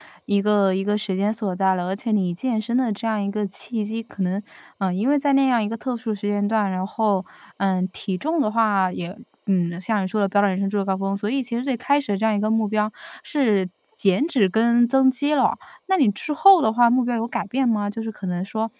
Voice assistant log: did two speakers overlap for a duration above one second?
No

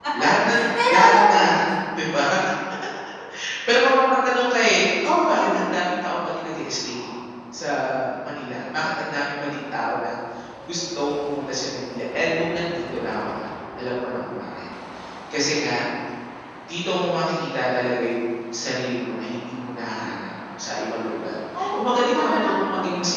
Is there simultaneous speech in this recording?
Yes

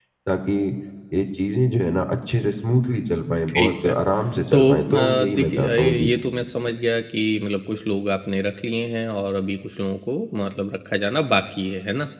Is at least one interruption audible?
Yes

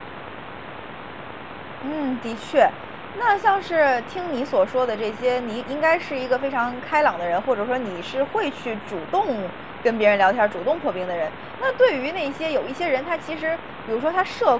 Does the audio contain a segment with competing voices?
No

